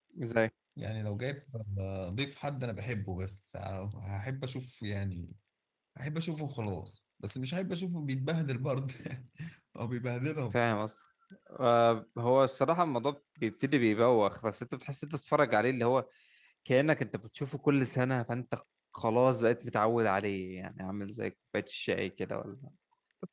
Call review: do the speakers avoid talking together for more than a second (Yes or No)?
Yes